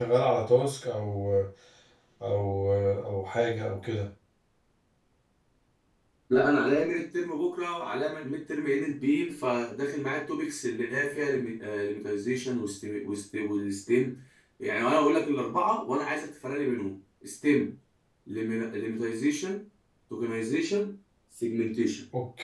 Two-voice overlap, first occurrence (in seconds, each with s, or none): none